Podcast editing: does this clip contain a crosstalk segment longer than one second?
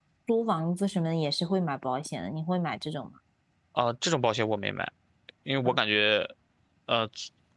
No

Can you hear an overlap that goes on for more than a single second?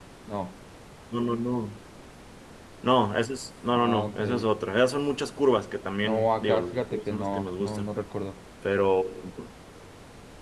Yes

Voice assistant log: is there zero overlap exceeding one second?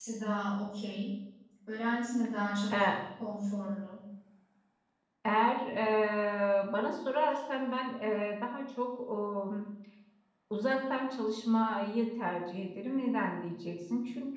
Yes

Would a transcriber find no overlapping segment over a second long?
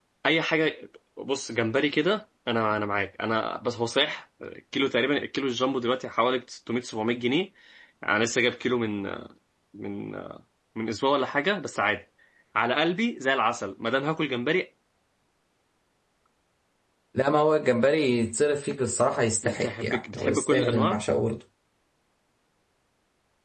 No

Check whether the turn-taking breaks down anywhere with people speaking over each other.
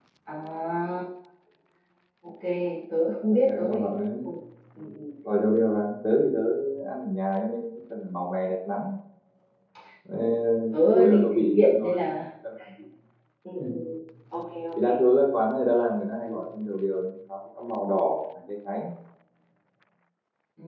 Yes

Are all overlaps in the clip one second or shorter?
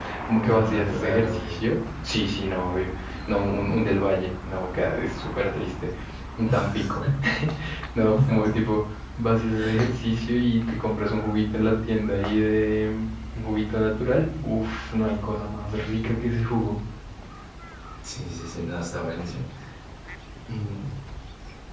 No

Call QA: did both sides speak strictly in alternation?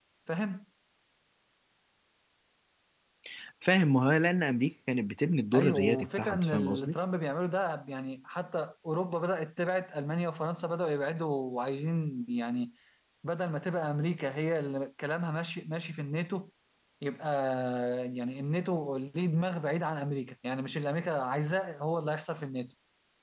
No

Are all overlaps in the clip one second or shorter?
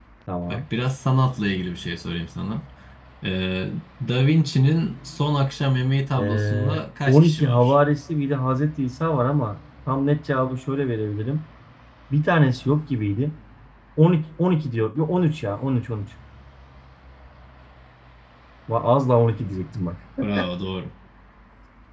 No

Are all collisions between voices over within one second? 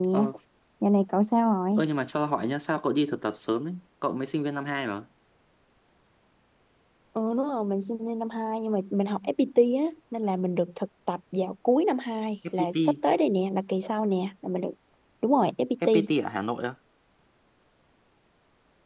Yes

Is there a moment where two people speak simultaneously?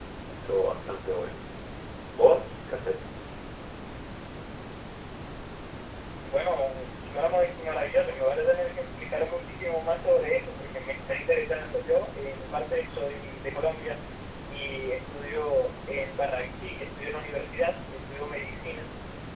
No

